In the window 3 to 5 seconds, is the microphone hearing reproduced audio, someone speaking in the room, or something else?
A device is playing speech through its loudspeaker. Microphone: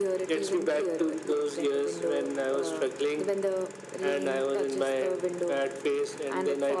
echo only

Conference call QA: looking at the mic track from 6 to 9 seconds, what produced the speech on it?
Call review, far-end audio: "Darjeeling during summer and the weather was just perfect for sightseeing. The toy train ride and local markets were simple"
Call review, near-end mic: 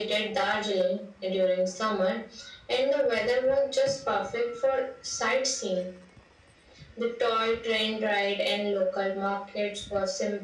echo only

